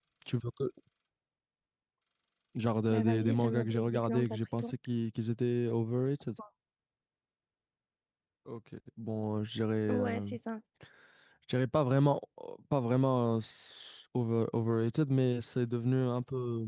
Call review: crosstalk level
present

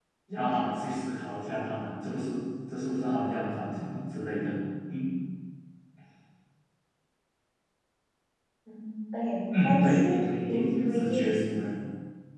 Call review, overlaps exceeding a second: present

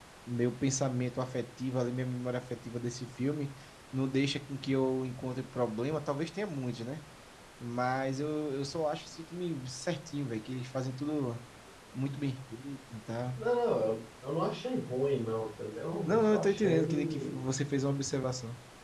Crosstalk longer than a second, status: present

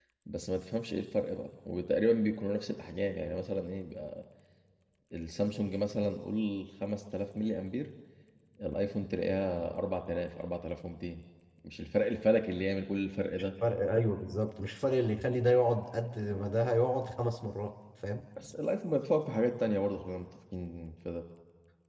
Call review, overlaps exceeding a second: none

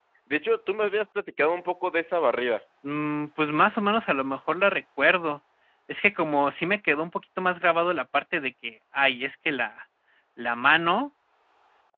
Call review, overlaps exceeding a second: none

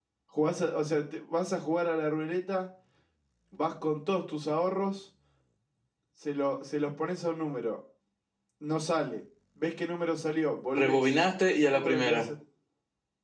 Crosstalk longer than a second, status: present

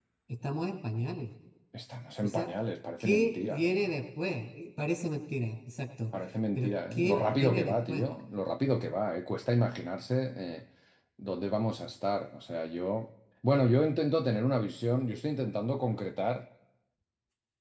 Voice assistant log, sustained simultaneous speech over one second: present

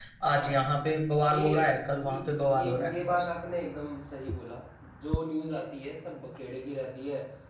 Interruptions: present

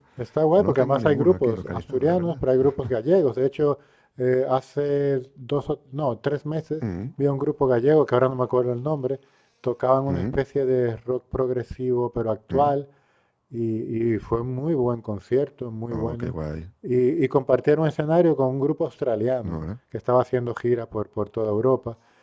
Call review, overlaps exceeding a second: present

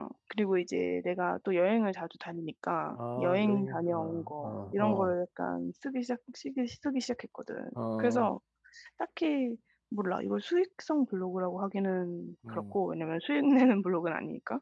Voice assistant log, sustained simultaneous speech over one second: present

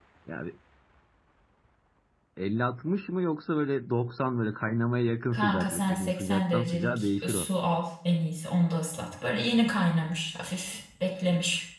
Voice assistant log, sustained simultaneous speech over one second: present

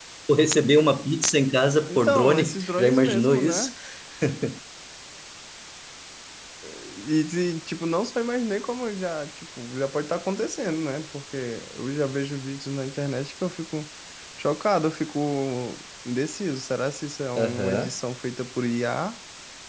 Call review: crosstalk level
present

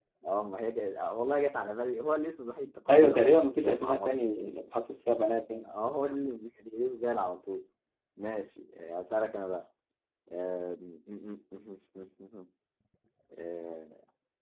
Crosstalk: present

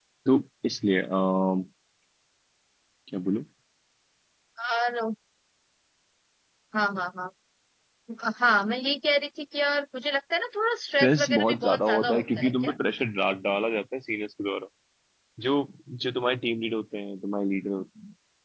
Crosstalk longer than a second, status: present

